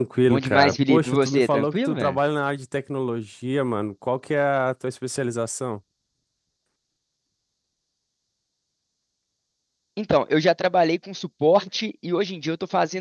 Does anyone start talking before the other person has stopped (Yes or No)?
Yes